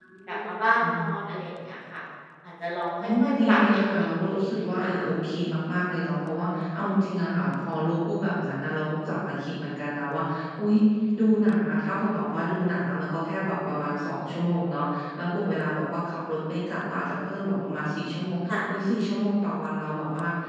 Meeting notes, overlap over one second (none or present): present